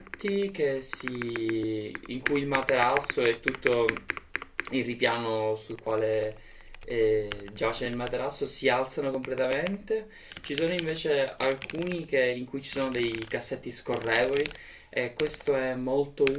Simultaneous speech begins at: none

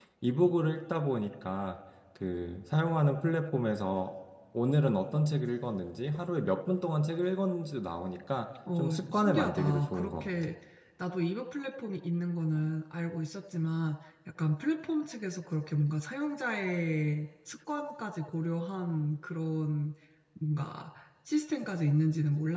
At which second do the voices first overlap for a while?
8.7 s

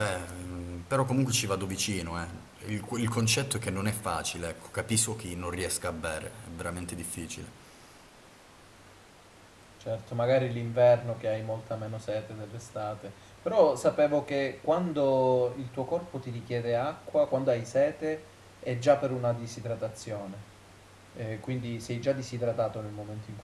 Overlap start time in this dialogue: none

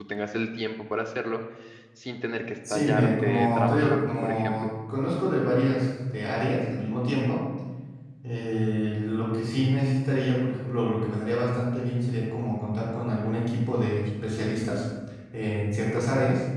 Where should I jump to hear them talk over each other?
2.7 s

